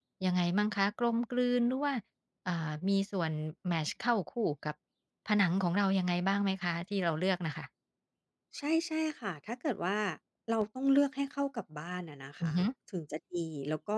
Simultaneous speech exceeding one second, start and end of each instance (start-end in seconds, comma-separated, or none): none